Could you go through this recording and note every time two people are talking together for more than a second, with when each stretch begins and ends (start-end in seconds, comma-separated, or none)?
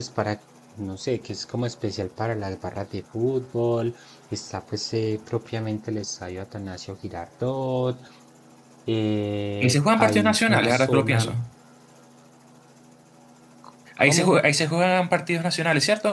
9.6-11.3